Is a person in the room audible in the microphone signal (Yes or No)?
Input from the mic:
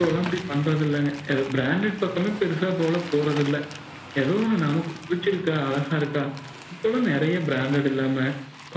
No